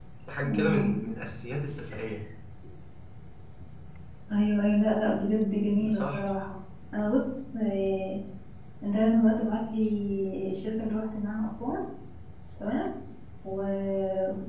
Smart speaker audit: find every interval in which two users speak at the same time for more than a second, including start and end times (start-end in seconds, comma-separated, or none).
none